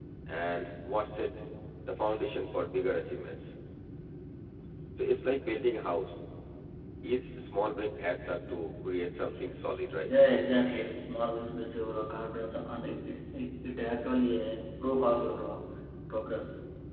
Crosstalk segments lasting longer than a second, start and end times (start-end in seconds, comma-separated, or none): none